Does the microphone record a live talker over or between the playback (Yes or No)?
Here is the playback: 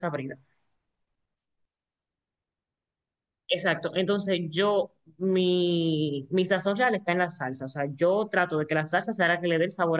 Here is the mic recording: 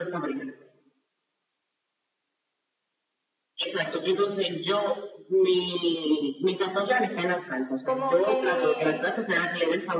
Yes